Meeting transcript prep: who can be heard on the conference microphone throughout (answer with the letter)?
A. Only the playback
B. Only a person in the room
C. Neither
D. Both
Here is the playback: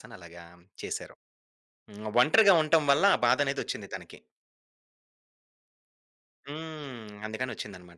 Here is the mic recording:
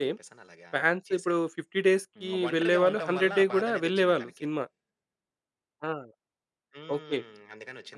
D